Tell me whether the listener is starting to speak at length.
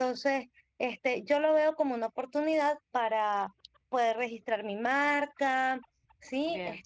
Yes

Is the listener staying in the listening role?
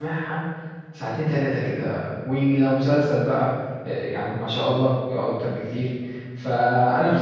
Yes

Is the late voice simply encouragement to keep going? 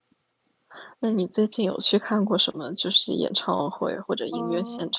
No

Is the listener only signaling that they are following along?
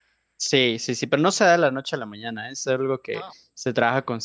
Yes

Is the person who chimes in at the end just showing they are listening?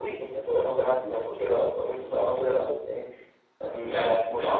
Yes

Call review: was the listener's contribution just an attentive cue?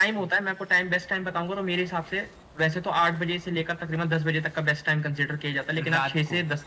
Yes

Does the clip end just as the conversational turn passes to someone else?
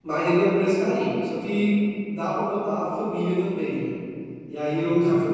No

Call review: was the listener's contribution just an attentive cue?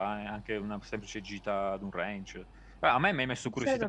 Yes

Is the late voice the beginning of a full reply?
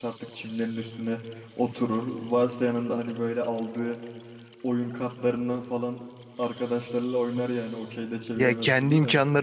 Yes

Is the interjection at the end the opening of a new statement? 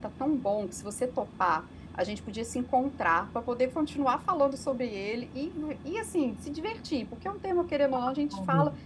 No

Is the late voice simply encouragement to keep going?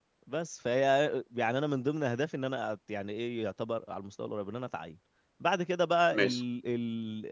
Yes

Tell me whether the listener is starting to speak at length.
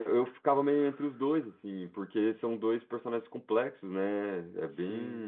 No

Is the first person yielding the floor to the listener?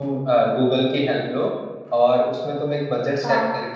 No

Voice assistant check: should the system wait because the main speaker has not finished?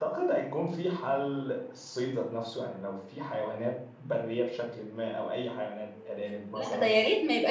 No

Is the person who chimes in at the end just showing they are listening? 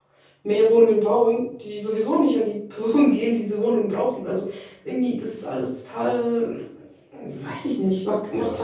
No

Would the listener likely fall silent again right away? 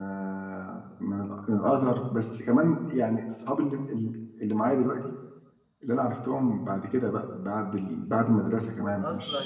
No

